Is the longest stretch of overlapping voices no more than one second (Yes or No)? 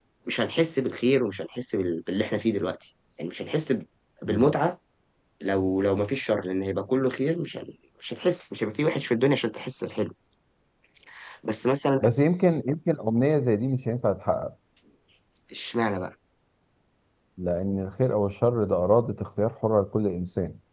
Yes